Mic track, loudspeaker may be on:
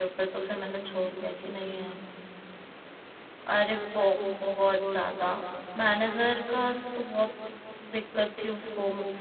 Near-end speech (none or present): present